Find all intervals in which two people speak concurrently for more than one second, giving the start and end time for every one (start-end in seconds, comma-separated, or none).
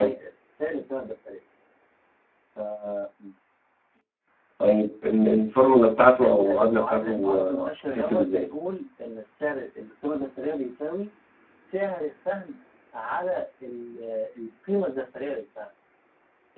6.2-8.5